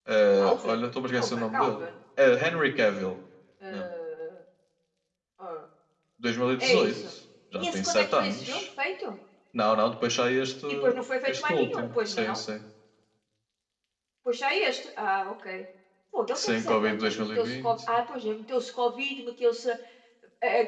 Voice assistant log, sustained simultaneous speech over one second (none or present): present